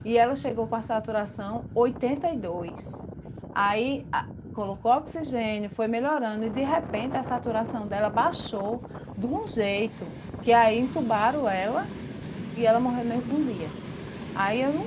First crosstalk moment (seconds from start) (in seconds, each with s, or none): none